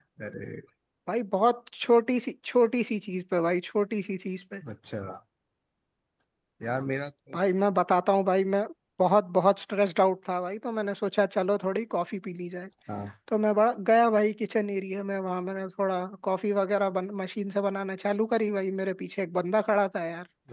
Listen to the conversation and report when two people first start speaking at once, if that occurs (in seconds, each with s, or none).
none